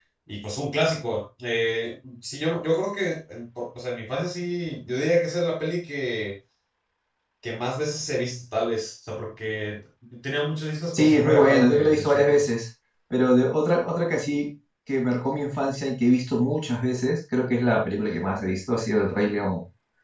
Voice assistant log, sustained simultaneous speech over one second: present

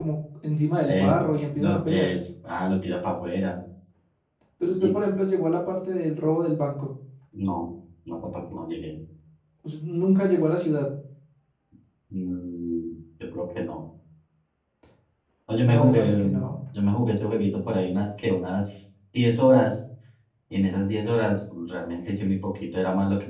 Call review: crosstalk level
present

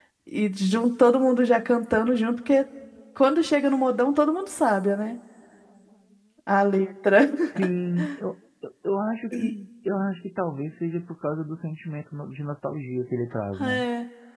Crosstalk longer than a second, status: none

